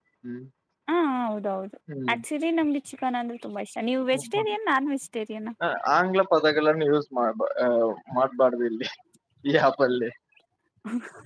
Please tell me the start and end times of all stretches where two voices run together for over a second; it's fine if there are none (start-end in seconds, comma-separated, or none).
none